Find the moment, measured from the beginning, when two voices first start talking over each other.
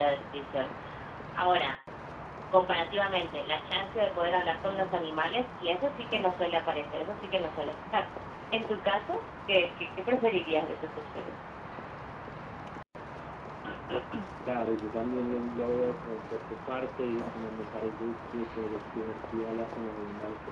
none

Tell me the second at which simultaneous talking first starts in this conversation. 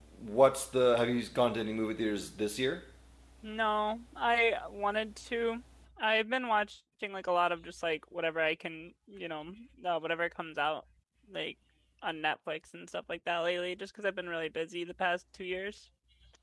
none

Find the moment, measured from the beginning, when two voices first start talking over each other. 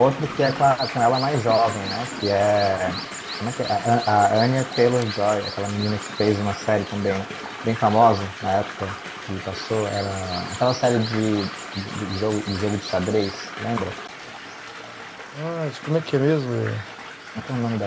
none

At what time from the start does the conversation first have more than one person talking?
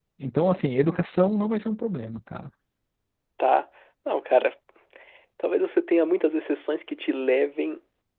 none

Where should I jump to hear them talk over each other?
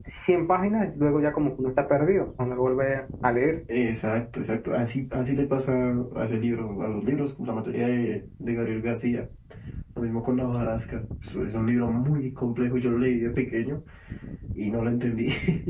none

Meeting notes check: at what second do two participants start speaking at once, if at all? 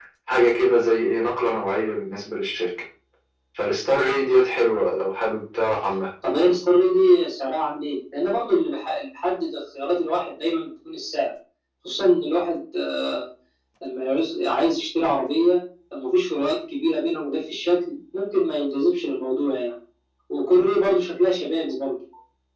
none

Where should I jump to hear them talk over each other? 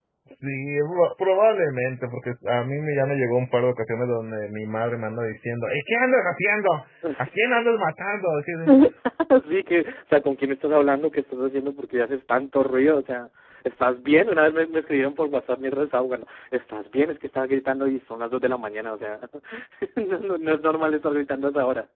none

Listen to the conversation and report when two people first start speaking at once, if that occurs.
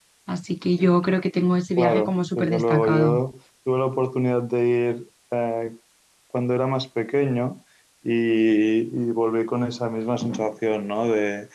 1.8 s

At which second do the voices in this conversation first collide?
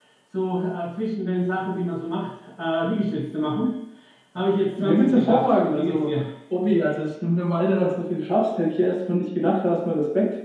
4.8 s

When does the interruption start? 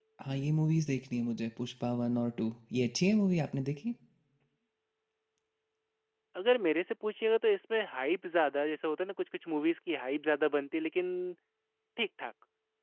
none

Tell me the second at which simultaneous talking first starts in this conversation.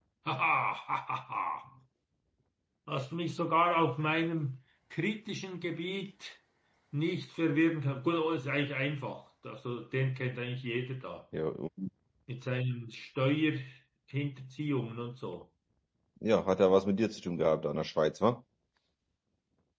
none

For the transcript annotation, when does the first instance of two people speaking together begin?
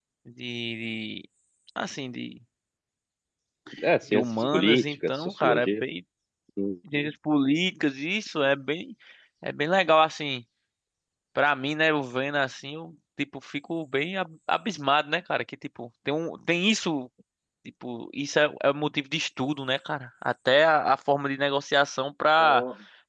4.1 s

